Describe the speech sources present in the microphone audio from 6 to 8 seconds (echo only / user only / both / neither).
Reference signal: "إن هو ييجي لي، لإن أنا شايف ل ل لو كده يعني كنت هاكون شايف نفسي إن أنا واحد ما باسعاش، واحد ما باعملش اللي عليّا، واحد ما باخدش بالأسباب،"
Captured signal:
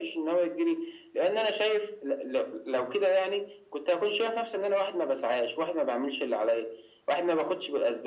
echo only